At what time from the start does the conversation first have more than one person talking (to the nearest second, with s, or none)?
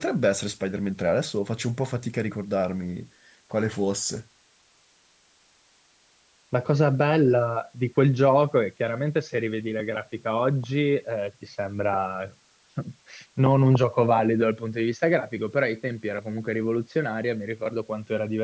none